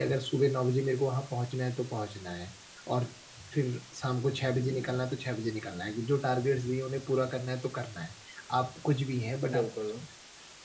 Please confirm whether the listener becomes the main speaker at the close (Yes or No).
No